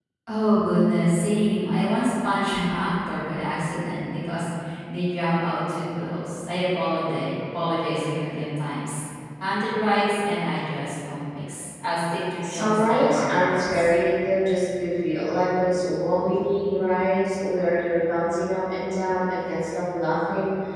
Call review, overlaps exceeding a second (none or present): present